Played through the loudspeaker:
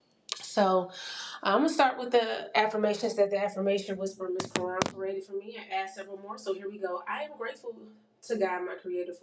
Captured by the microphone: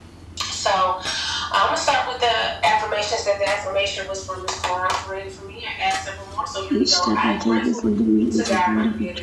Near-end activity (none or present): present